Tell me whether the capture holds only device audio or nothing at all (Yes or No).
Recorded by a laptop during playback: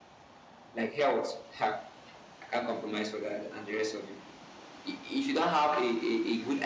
Yes